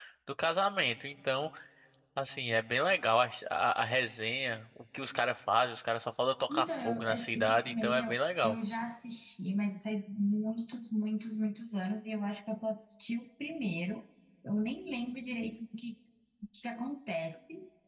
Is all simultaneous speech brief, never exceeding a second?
No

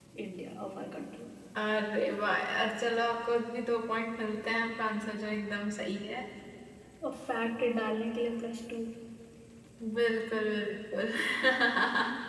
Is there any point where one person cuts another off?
No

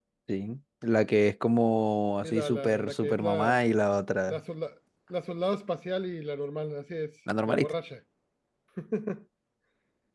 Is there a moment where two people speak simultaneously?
Yes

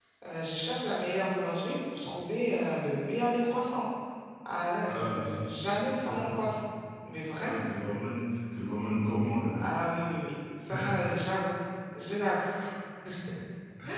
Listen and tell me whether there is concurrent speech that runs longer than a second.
No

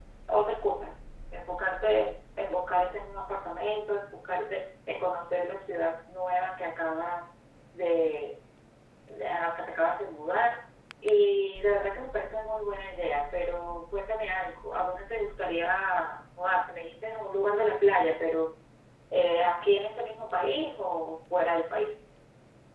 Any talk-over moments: No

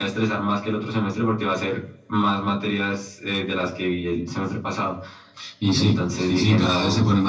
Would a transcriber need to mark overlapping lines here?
Yes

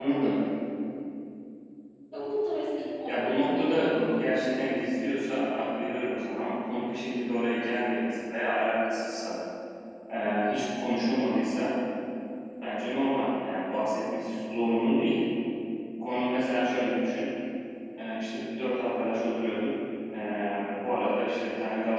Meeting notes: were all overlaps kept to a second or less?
No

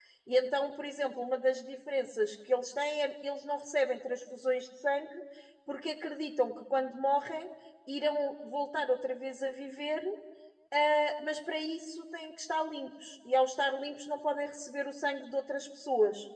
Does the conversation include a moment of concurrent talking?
No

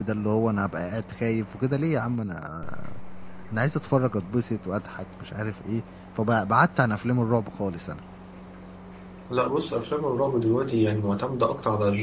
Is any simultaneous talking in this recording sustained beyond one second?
No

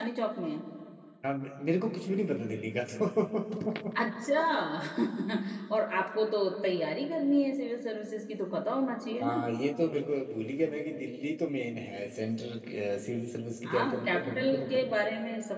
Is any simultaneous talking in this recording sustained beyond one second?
Yes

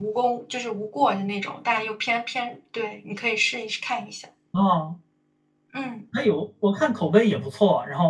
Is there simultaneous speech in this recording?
No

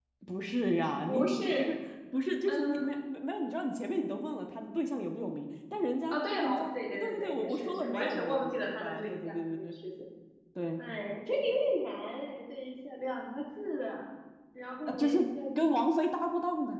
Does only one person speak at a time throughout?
No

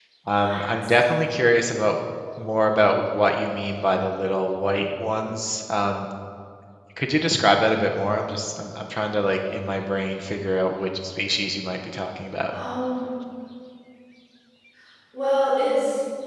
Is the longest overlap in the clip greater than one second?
No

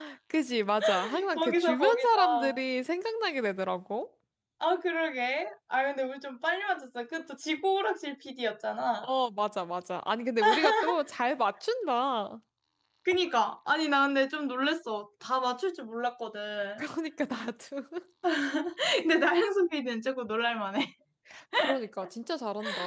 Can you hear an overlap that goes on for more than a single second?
Yes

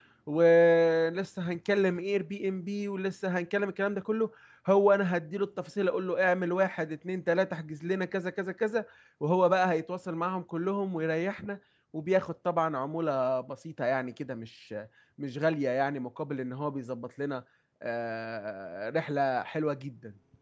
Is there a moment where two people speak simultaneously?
No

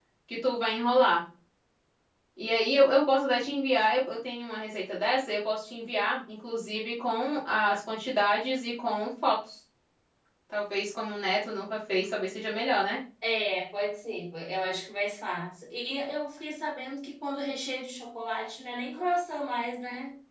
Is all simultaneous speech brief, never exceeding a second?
Yes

